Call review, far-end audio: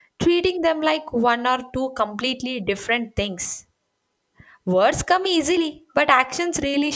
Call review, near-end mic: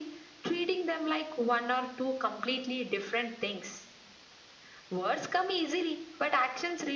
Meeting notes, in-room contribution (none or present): none